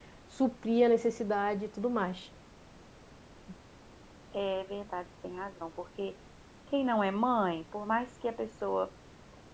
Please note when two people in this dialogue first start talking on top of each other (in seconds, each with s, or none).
none